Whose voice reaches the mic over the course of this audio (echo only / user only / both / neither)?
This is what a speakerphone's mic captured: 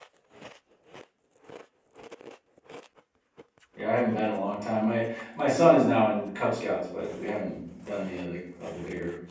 user only